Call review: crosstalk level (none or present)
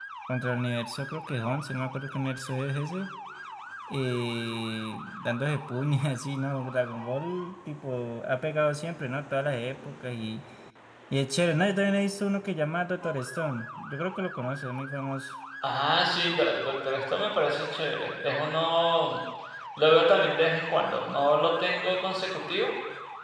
none